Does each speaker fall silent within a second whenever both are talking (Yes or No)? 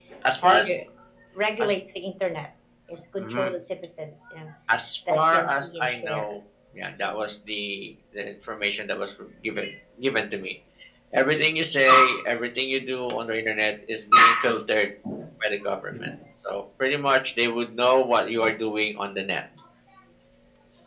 No